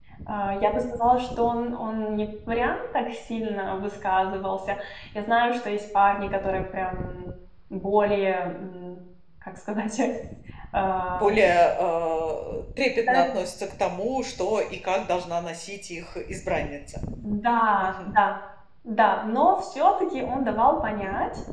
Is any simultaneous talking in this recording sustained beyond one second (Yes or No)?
No